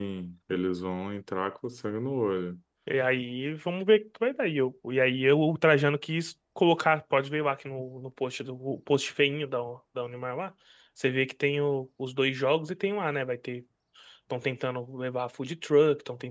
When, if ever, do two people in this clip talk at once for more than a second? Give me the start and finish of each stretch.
none

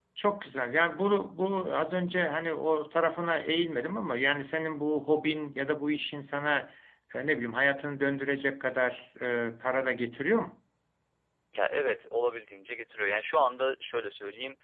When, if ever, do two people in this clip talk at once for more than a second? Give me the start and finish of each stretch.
none

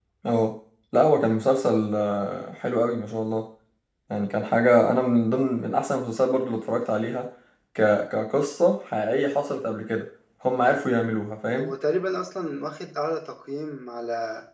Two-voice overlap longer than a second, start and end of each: none

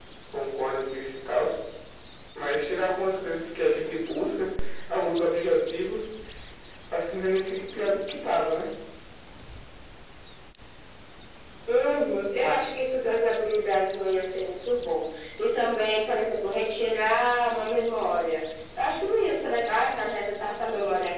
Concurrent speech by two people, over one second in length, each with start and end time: none

